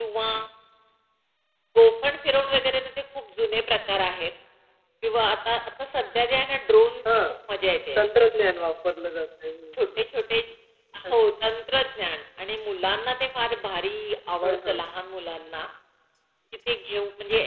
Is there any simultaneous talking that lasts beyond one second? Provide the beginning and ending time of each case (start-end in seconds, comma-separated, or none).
none